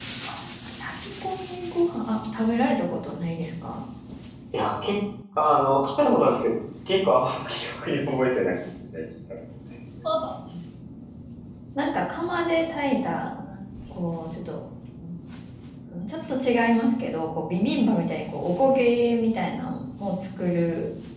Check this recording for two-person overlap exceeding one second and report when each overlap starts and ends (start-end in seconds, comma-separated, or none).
none